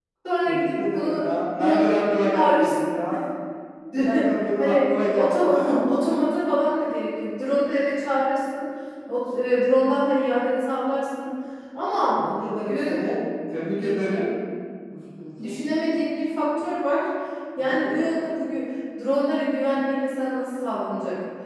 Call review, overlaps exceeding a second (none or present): present